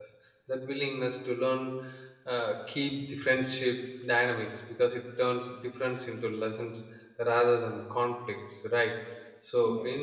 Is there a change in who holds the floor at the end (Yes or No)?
No